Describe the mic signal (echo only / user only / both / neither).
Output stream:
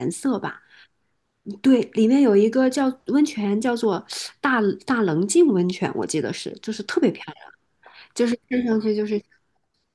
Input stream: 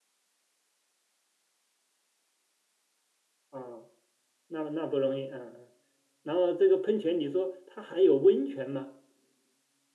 user only